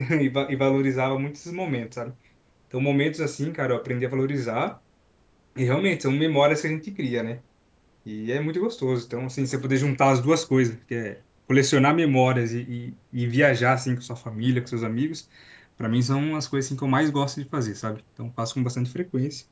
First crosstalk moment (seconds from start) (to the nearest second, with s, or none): none